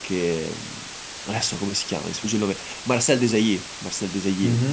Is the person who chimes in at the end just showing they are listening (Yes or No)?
No